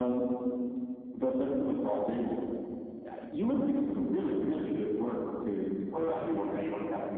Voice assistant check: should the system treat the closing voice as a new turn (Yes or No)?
Yes